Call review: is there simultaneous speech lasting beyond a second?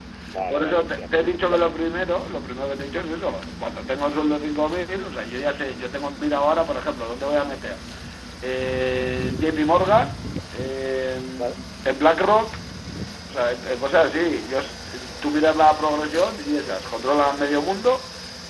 Yes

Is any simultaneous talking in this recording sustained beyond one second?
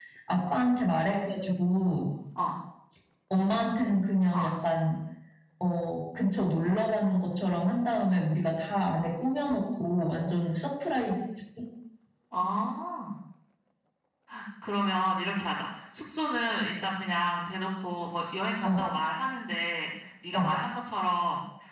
No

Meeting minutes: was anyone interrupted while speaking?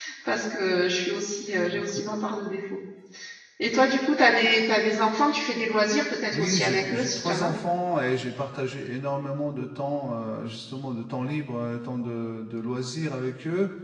Yes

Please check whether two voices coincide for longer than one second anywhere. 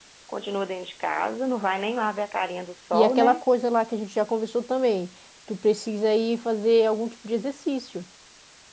No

